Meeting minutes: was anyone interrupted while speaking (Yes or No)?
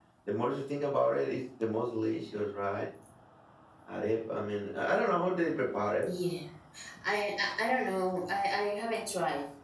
No